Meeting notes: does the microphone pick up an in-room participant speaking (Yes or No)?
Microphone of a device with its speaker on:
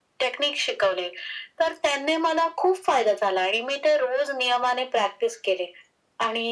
No